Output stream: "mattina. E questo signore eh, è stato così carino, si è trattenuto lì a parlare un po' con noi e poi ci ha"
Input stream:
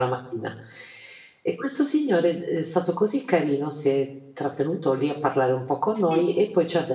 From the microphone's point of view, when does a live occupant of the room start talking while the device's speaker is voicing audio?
5.9 s

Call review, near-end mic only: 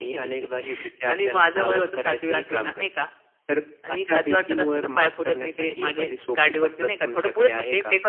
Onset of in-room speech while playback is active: none

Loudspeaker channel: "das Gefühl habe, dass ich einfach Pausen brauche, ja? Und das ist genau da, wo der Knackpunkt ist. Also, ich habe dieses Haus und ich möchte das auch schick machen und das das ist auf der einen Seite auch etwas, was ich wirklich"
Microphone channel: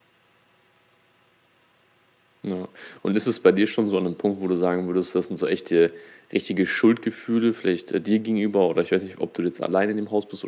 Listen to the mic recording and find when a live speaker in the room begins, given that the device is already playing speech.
2.4 s

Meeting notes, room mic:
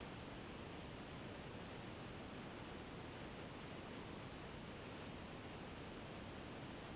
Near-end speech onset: none

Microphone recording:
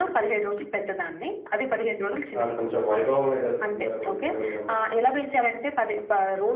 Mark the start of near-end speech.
2.4 s

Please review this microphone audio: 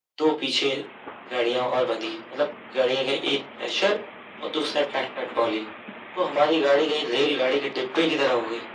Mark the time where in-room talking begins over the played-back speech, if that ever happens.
none

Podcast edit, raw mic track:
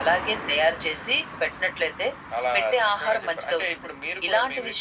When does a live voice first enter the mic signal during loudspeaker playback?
none

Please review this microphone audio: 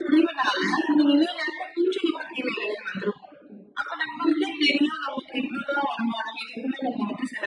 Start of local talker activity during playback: none

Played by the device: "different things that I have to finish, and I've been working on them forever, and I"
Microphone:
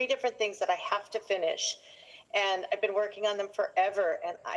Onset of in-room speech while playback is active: none

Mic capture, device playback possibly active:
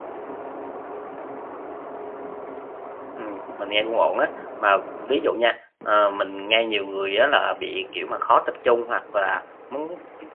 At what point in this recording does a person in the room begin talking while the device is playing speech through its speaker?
3.1 s

